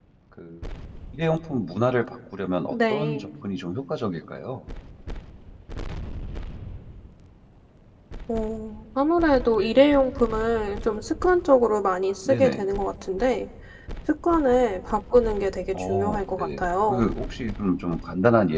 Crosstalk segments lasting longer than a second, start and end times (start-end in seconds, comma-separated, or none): 15.7-17.0